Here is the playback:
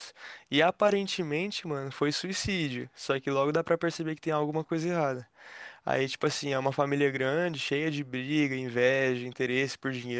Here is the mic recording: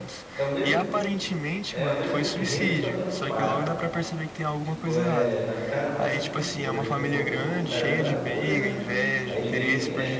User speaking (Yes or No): Yes